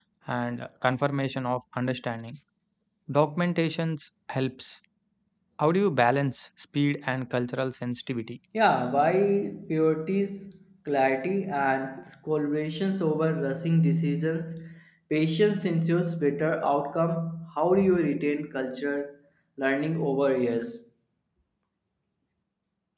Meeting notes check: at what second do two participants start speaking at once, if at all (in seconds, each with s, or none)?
none